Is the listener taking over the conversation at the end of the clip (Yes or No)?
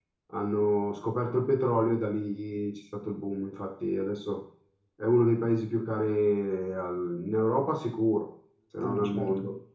Yes